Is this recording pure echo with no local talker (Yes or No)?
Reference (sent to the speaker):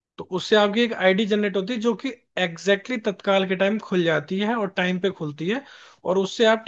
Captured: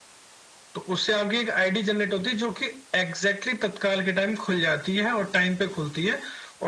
Yes